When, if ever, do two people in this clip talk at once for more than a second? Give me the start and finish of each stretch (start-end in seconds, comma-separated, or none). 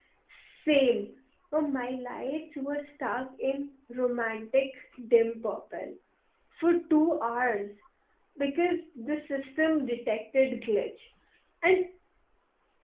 none